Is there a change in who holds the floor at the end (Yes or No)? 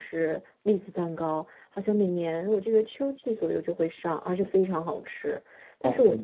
No